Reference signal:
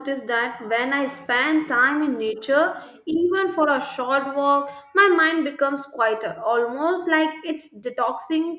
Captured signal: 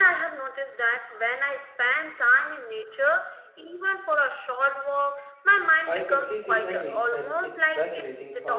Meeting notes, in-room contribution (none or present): present